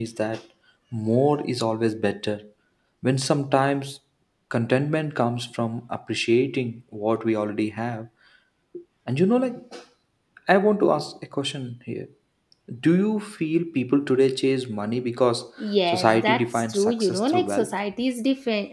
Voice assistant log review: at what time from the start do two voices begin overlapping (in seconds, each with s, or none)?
15.9 s